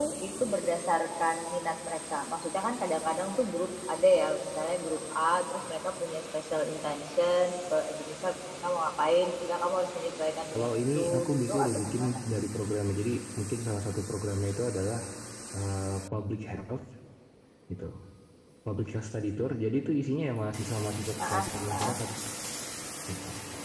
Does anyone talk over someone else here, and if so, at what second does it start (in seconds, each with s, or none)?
10.5 s